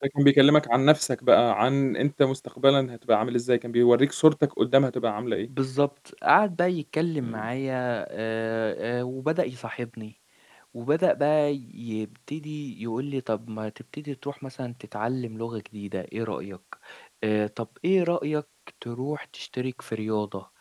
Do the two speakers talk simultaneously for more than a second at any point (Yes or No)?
No